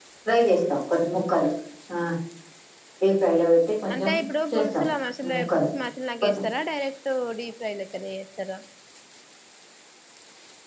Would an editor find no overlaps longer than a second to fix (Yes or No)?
Yes